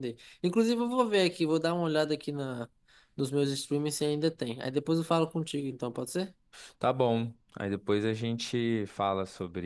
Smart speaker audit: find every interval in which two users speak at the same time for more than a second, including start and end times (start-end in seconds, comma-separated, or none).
none